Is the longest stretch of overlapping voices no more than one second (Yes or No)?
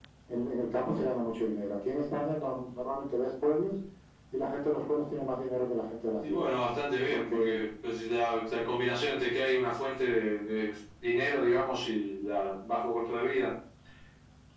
Yes